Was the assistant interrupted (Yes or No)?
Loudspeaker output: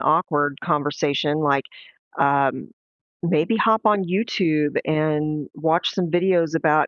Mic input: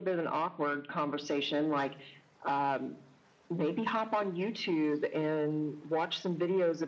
No